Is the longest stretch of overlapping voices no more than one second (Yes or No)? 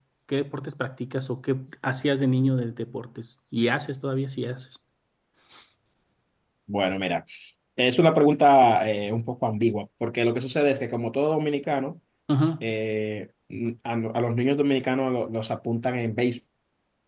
Yes